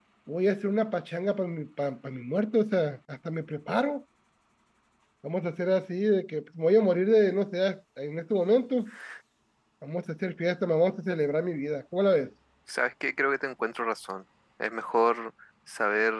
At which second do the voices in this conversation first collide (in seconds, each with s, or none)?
none